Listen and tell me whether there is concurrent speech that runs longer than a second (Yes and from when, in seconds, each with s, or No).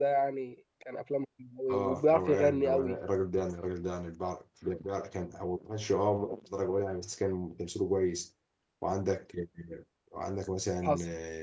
Yes, from 1.7 s